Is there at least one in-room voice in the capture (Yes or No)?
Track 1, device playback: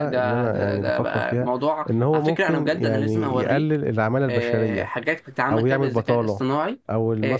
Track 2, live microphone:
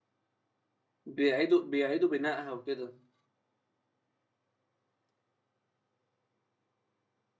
Yes